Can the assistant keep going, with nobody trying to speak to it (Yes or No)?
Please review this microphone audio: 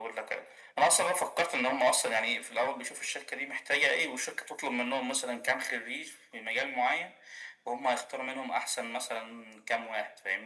Yes